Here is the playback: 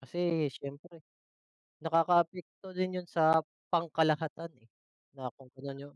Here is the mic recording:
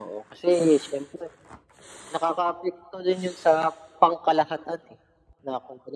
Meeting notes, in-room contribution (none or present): none